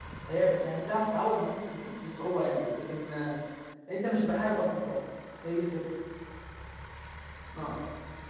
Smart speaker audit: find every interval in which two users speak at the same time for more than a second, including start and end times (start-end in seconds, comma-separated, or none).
none